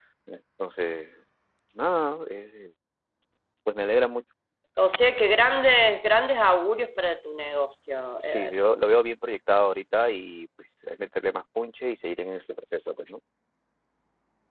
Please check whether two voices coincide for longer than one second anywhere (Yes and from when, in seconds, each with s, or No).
No